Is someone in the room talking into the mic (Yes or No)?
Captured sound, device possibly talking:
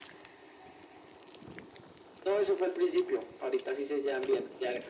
No